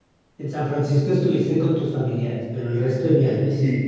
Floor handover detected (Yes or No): Yes